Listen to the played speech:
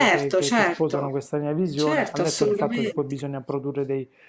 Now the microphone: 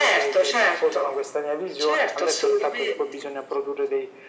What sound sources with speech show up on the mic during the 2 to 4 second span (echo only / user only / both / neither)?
echo only